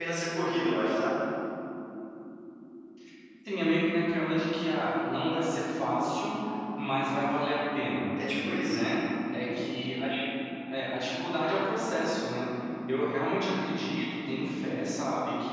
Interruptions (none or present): none